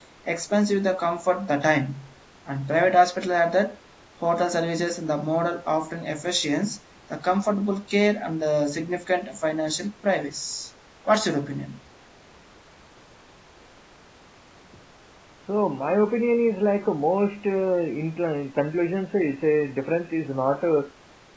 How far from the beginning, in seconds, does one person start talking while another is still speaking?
none

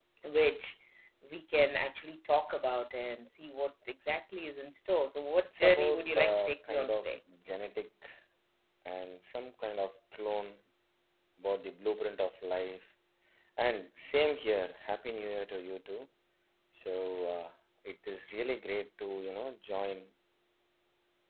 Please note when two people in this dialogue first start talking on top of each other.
5.4 s

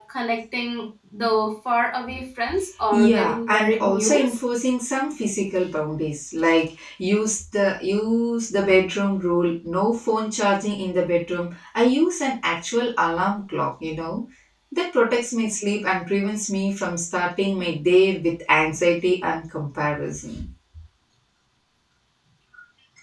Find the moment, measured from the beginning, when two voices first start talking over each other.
2.9 s

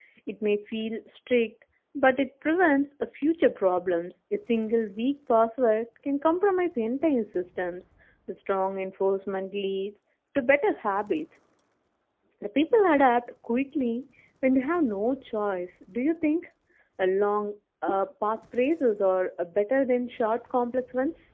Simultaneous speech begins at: none

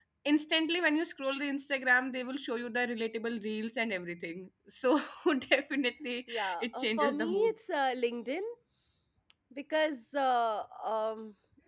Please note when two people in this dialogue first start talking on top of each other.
6.3 s

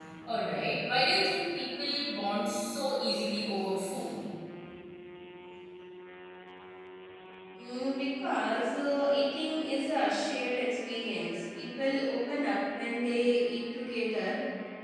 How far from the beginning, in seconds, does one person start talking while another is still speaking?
none

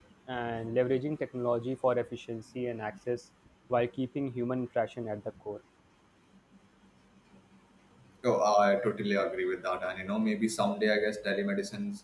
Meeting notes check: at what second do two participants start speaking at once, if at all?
none

